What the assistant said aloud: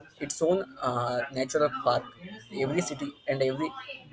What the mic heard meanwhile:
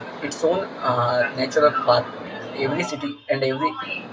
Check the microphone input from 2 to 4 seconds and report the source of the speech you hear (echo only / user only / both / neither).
echo only